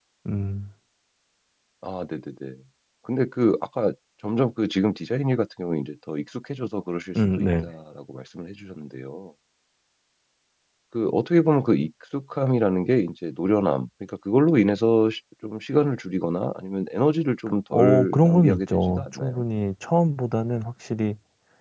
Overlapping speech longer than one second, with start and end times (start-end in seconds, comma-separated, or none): 17.7-19.4